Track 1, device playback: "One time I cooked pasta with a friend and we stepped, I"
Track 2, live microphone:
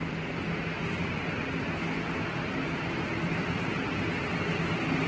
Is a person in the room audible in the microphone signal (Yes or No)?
No